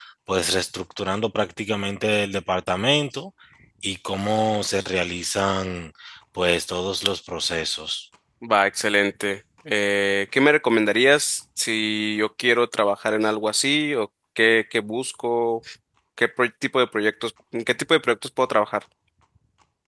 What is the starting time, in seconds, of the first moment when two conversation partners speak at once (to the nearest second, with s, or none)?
none